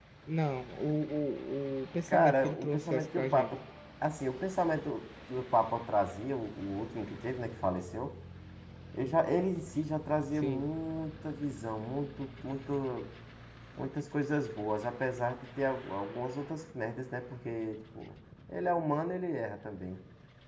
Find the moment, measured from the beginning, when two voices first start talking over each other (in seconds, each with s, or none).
2.1 s